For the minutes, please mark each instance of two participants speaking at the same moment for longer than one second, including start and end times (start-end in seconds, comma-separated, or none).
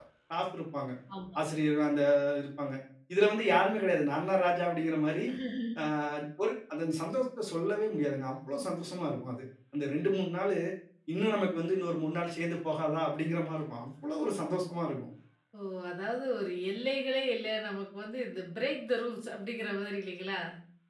none